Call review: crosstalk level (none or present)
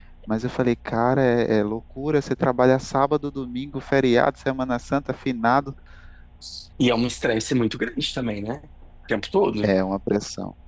none